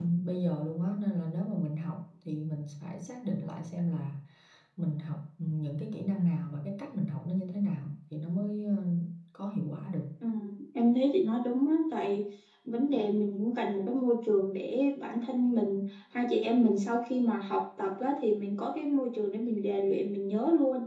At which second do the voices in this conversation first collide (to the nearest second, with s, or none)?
none